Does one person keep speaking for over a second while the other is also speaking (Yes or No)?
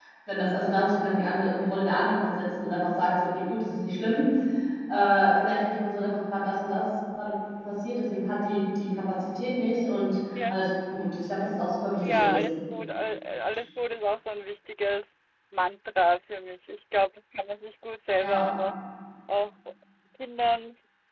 No